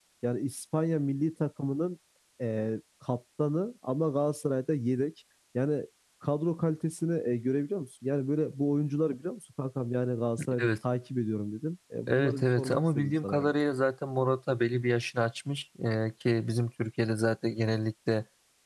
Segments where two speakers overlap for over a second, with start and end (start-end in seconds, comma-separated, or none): 12.1-13.5